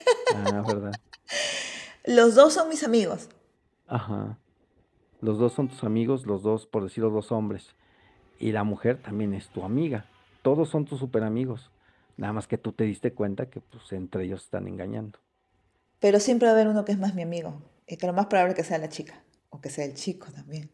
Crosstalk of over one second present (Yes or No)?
No